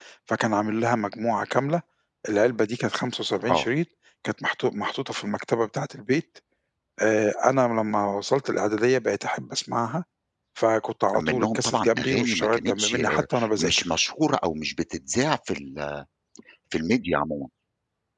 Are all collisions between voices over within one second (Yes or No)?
No